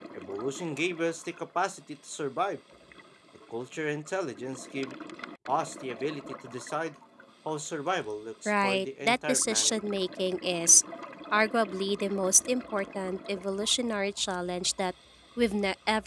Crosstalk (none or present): present